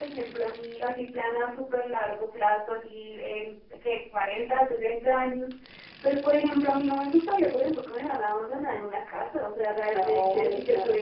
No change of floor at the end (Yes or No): Yes